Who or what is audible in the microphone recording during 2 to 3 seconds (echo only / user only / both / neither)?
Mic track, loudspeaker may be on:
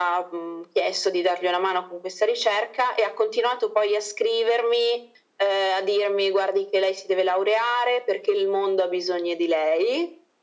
echo only